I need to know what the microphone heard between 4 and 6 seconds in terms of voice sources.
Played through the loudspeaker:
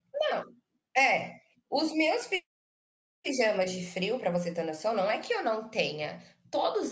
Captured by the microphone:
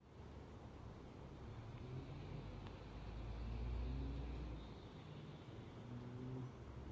neither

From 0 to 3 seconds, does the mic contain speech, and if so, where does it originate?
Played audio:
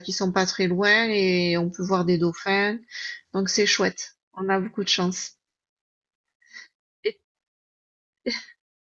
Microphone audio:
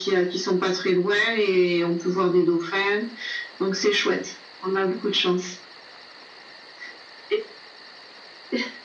echo only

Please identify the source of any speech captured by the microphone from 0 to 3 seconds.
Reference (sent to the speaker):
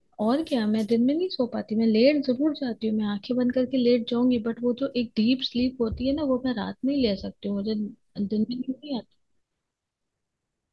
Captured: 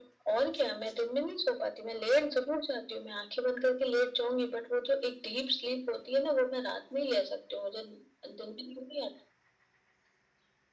echo only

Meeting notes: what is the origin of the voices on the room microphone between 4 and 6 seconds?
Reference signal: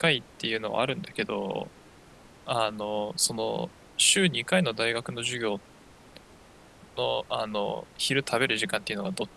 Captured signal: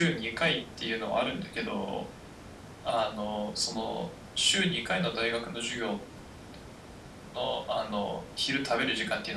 echo only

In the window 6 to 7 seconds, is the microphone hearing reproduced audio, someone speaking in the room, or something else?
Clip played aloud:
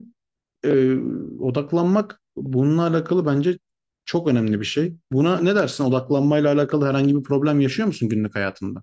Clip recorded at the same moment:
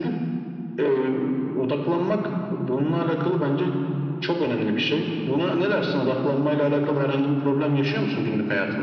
echo only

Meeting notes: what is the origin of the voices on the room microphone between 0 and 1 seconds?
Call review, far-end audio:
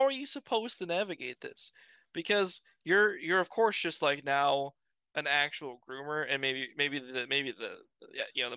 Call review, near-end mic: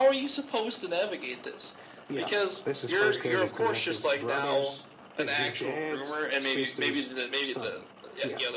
echo only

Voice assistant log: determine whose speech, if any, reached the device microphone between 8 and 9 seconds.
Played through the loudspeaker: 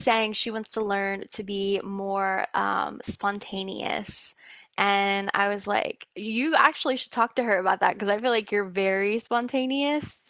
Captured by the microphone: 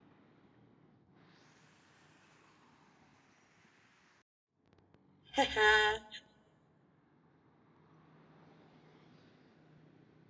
neither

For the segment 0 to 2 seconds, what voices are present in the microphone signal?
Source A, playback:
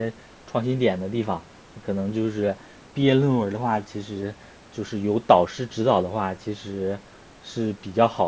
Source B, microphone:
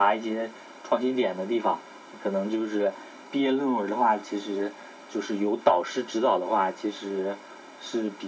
echo only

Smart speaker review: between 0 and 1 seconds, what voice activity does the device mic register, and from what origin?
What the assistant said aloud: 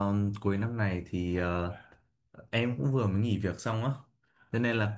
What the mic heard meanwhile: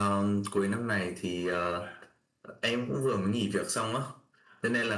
echo only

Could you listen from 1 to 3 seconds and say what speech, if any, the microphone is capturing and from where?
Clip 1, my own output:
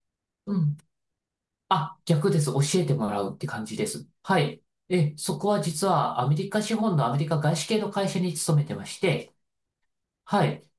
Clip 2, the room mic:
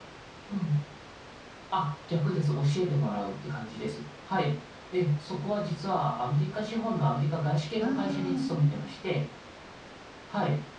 echo only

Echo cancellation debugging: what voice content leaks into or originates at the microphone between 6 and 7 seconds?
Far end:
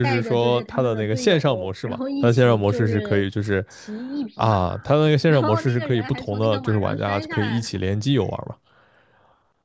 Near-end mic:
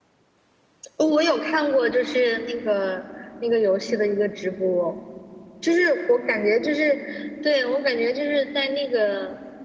user only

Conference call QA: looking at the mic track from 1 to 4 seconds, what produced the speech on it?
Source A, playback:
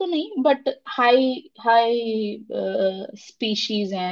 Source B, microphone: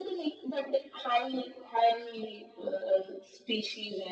echo only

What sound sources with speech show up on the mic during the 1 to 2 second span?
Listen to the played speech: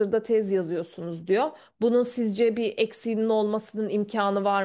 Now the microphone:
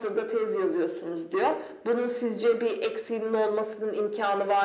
echo only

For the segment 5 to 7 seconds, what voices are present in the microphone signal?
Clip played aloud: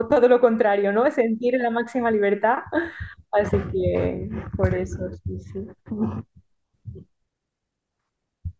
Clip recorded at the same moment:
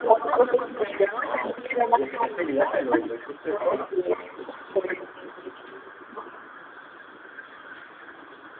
echo only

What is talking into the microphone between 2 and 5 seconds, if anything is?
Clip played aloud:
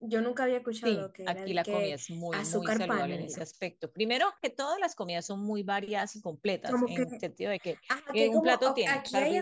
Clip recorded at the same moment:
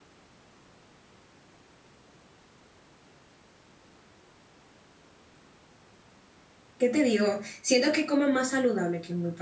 neither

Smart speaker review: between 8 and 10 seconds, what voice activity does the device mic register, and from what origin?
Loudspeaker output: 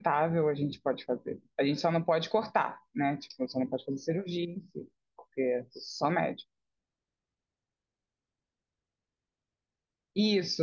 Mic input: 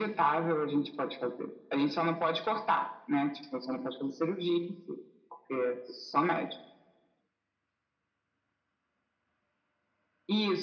neither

